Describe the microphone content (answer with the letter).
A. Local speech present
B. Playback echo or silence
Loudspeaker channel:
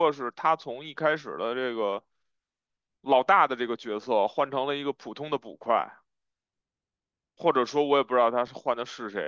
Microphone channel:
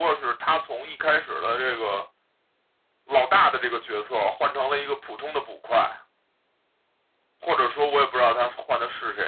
B